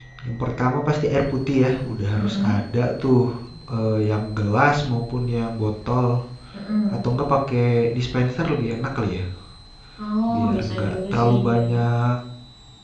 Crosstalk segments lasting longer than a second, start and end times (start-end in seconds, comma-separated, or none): 10.3-11.8